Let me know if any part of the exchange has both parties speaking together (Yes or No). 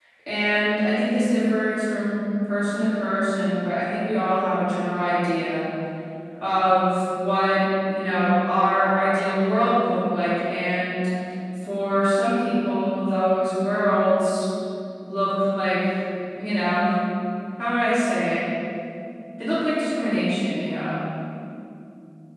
No